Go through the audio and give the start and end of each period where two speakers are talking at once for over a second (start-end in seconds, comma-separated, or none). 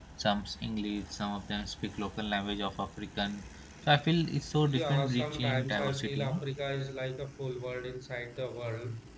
4.6-6.4